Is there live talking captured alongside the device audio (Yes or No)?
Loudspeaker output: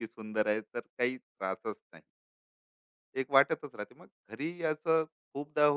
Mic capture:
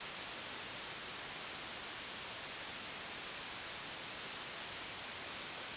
No